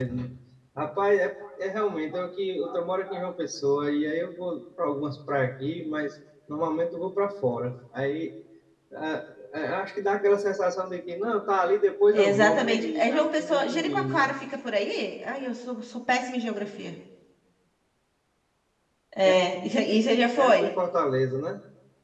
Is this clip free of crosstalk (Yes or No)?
No